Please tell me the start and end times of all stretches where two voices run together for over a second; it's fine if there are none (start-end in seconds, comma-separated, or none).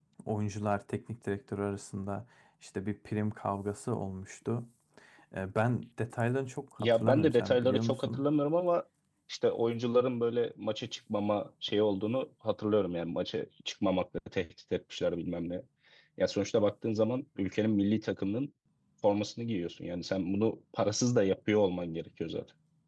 6.8-8.3